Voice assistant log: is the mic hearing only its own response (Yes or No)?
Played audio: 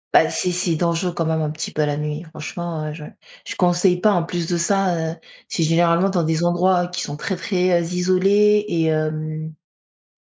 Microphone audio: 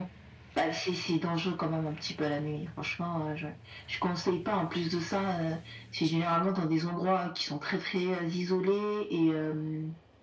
Yes